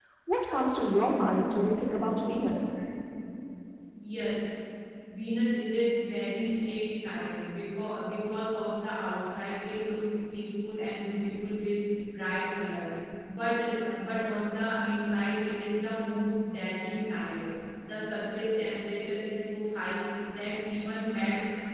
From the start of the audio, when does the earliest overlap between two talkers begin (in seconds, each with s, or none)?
none